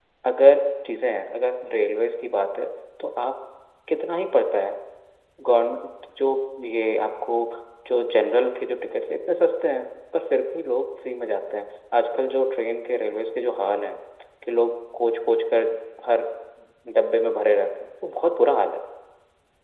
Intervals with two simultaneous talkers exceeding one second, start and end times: none

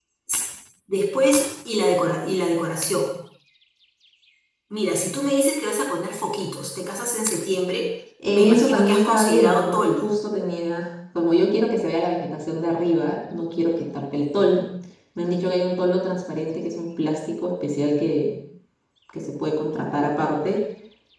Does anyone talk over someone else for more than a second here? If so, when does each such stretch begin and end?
8.2-10.1

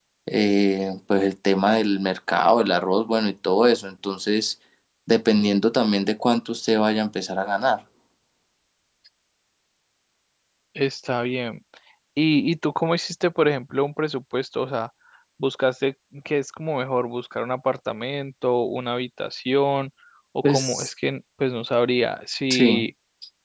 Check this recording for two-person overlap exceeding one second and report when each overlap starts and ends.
none

